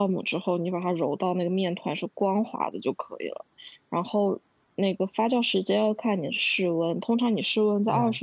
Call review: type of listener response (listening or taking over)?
listening